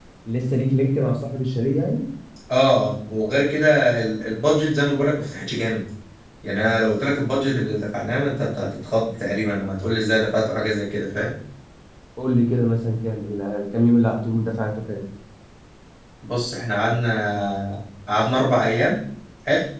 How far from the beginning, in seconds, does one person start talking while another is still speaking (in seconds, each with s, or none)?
none